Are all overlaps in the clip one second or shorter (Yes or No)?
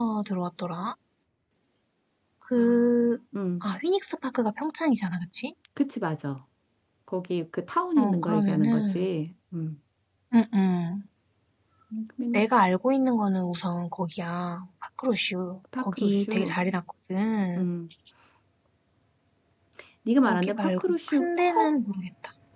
No